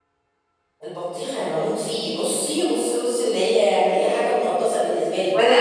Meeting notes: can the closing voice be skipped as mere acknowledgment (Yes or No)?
No